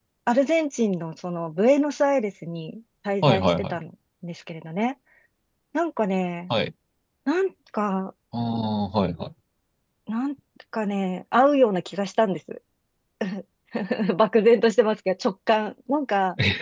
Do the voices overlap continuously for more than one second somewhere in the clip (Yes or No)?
No